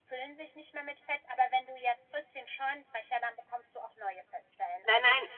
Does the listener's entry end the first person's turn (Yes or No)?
No